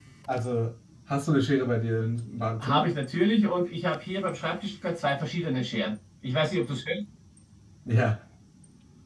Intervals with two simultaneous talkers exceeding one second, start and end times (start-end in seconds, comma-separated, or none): none